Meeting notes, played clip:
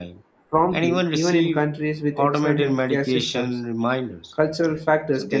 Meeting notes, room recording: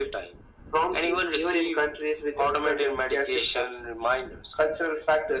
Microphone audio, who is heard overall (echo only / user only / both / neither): echo only